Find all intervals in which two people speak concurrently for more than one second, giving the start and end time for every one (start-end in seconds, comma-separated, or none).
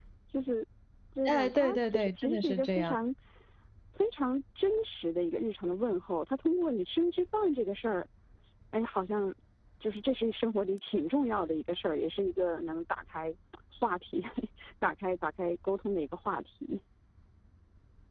1.2-3.0